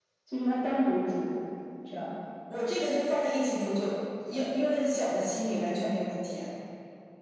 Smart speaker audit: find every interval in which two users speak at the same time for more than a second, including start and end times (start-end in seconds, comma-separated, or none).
none